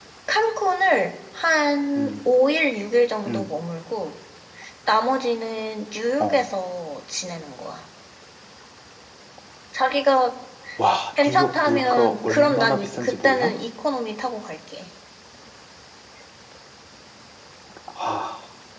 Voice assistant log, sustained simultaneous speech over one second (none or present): present